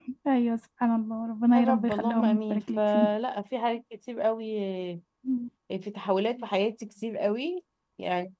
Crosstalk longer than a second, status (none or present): present